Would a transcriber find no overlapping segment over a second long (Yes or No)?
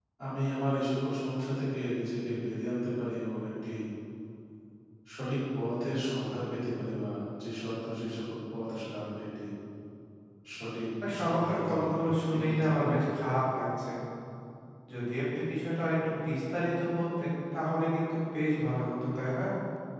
No